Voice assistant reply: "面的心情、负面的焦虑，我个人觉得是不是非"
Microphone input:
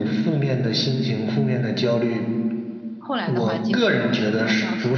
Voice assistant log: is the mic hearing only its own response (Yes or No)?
No